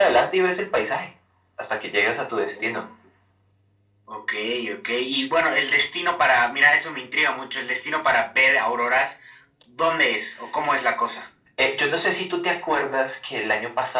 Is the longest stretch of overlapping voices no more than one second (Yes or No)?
Yes